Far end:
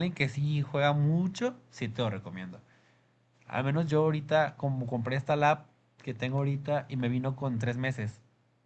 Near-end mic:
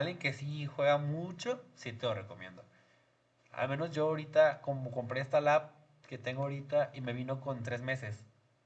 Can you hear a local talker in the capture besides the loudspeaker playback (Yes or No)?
No